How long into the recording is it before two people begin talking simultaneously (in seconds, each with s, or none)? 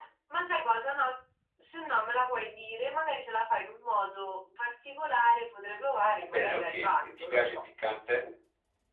6.2 s